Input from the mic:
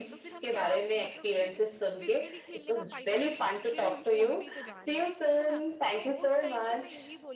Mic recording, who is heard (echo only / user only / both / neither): both